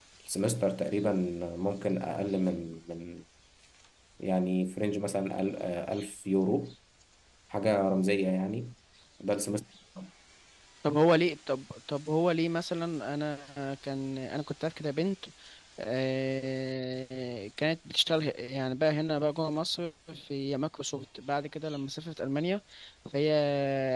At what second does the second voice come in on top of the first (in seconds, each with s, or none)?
none